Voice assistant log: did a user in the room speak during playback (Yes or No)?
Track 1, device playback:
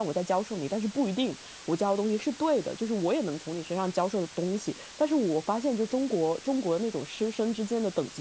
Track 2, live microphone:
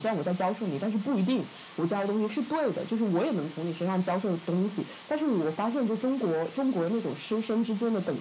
No